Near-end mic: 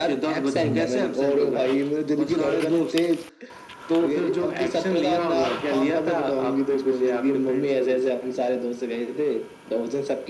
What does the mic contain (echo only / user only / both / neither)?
both